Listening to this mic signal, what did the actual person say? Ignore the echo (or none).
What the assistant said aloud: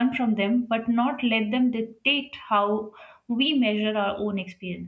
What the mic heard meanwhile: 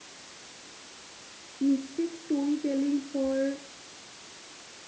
mistake storytelling for